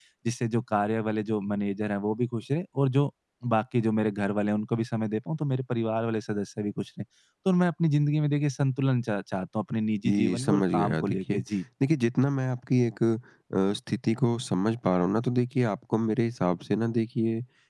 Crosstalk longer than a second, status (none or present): present